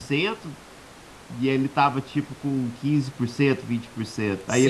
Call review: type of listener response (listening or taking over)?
taking over